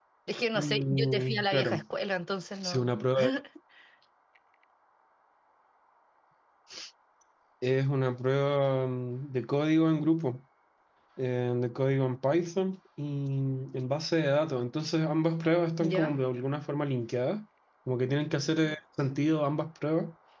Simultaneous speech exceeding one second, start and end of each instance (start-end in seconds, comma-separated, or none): 0.6-1.8